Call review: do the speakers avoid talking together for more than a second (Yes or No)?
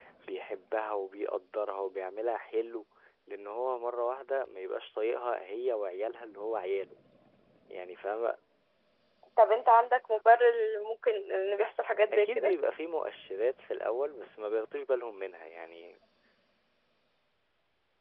Yes